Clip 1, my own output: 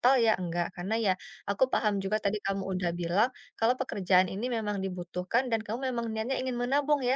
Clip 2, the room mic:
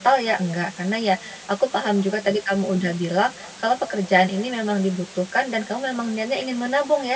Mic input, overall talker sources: echo only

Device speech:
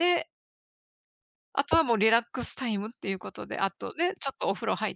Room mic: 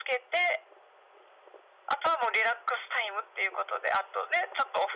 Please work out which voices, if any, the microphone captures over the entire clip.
echo only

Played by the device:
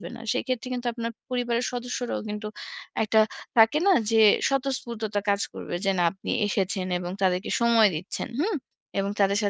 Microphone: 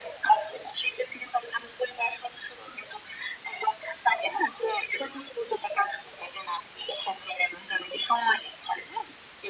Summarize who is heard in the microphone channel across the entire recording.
echo only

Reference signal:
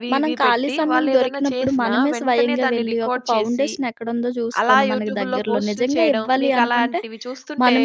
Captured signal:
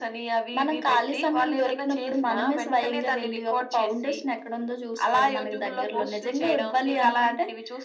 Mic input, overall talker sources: echo only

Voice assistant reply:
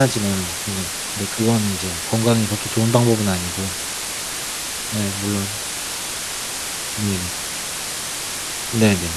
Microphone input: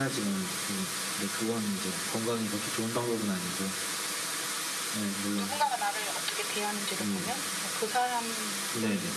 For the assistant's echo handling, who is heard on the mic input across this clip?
both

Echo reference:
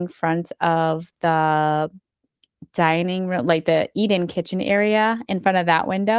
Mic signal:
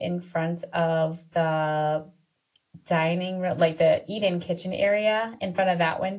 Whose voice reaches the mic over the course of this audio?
echo only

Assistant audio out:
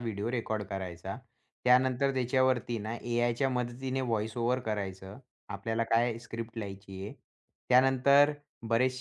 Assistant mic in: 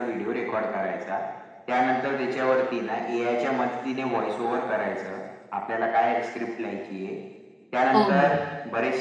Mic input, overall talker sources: both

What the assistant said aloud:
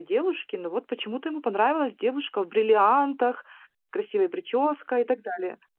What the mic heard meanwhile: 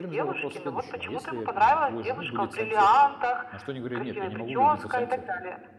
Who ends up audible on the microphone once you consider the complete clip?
both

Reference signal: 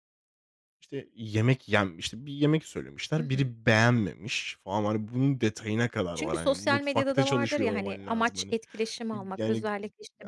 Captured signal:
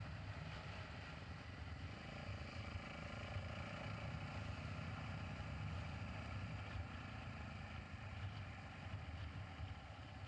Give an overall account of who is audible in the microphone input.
neither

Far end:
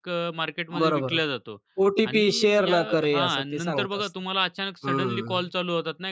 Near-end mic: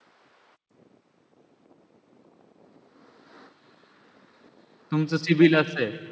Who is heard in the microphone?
user only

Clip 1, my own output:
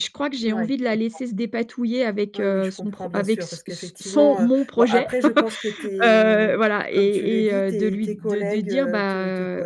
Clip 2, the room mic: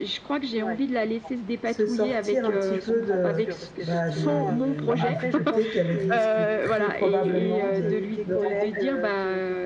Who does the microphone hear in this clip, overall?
both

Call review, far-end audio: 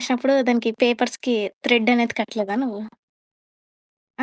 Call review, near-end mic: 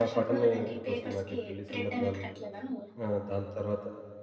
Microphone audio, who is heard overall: both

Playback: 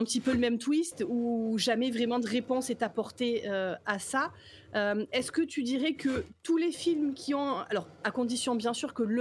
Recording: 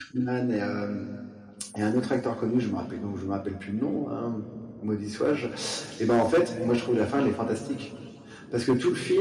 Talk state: user only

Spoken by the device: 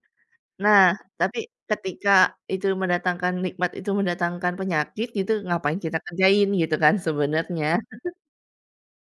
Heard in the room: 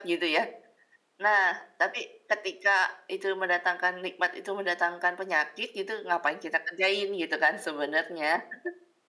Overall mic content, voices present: echo only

